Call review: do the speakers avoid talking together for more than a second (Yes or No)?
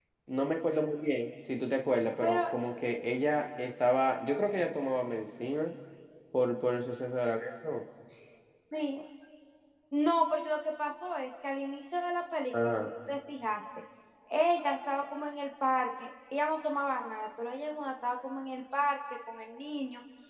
Yes